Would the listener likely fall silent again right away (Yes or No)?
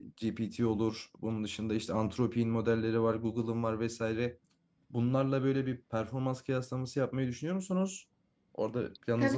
No